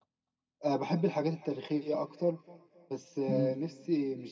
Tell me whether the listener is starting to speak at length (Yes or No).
No